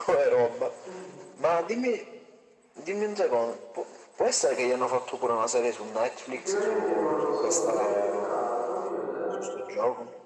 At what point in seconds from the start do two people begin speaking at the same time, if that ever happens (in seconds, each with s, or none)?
6.3 s